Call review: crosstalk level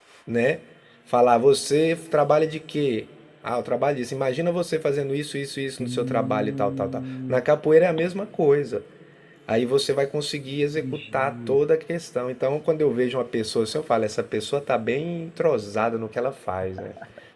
present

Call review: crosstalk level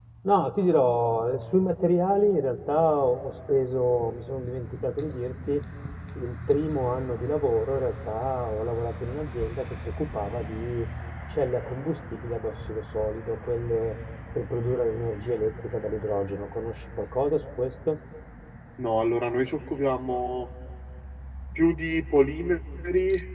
none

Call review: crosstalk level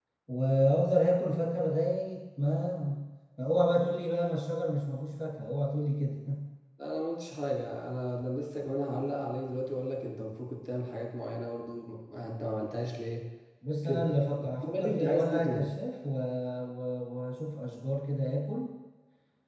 present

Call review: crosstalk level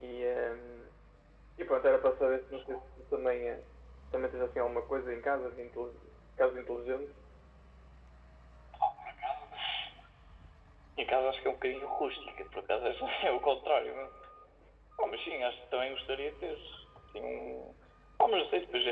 none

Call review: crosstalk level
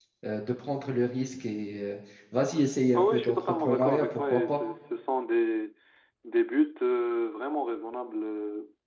present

